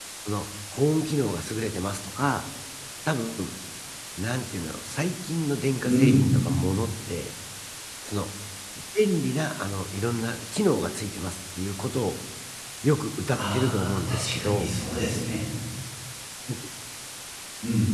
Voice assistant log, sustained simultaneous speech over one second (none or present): present